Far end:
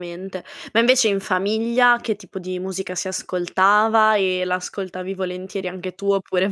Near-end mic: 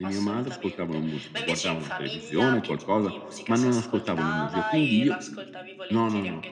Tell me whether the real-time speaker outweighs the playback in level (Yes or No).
Yes